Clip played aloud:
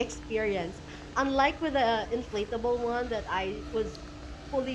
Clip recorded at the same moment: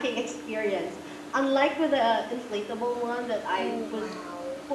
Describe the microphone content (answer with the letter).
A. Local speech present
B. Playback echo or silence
A